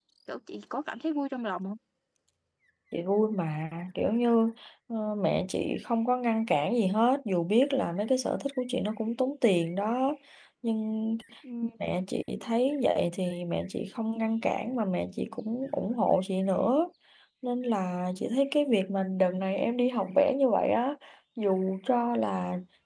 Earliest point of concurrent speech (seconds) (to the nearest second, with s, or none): none